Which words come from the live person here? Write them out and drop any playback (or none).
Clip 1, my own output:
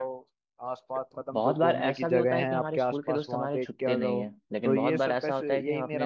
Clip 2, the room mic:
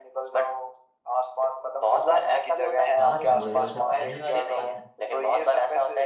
हाँ हाँ जरूर ये सब कहने वाली बात है